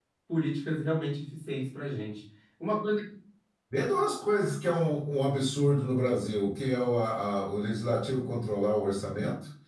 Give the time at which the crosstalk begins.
none

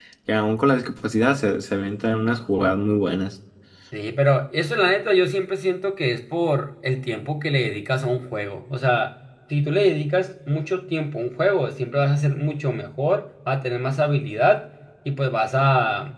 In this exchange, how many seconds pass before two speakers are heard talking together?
none

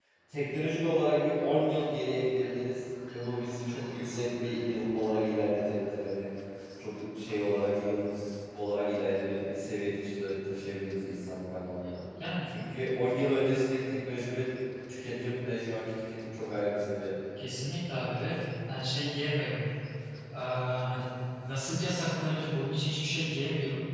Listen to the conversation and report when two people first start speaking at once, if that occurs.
none

